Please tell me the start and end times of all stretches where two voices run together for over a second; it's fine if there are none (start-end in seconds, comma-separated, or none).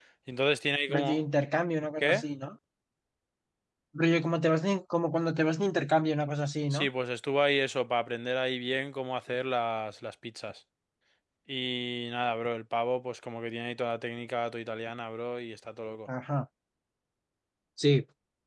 none